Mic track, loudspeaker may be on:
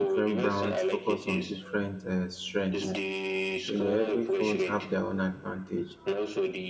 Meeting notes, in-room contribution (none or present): present